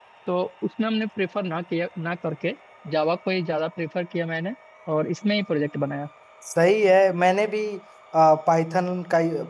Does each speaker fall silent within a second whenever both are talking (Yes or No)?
Yes